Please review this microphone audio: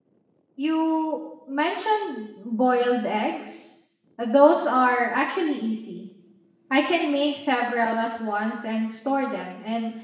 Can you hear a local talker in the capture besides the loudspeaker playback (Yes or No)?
Yes